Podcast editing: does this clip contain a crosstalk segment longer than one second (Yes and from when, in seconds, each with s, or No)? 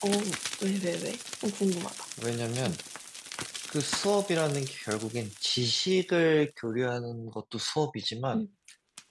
No